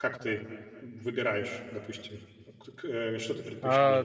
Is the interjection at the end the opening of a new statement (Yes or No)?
Yes